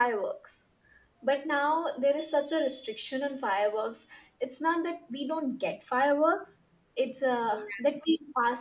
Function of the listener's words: listening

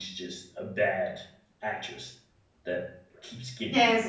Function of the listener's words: taking over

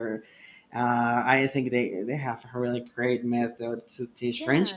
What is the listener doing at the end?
listening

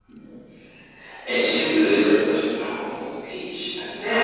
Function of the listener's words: taking over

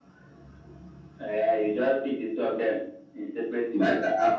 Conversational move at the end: taking over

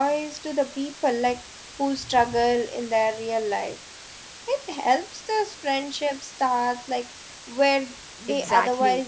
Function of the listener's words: taking over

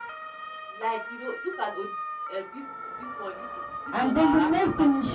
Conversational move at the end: taking over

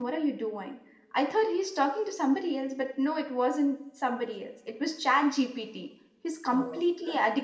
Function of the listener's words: listening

